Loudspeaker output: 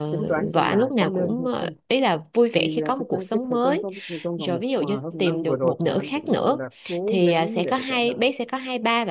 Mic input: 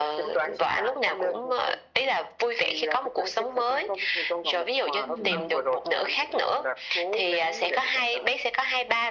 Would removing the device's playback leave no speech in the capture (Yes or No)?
No